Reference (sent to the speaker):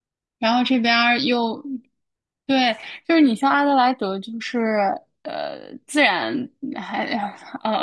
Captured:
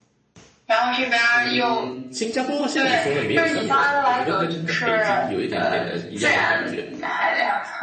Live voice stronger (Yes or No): No